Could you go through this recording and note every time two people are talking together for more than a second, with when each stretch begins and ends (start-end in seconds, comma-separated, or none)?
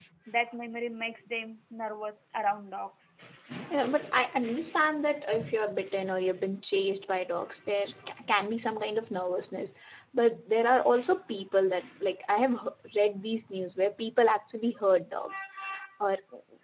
none